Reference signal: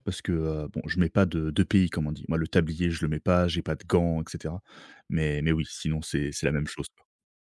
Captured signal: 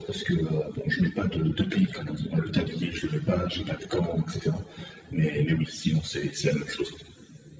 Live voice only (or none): none